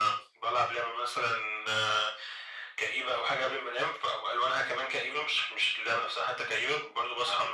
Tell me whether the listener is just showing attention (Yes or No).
Yes